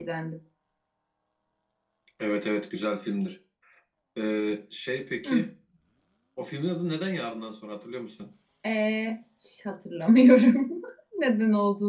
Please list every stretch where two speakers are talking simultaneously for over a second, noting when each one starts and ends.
none

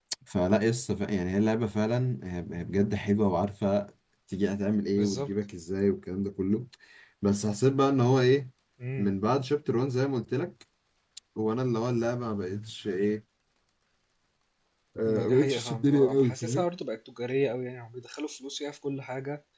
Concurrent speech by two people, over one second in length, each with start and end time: 15.1-16.6

